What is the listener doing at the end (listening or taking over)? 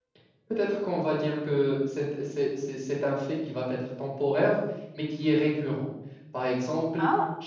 listening